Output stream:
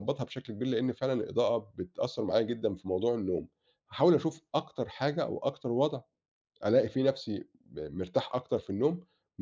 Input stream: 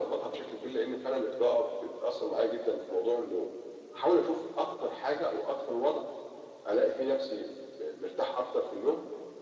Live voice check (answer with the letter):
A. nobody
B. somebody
A